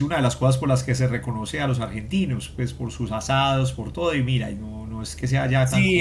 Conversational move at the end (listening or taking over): taking over